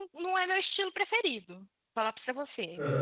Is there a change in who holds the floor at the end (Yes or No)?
No